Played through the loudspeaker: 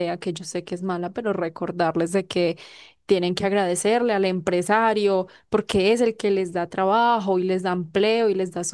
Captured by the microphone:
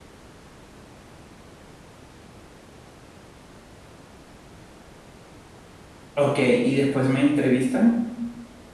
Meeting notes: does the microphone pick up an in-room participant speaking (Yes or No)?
Yes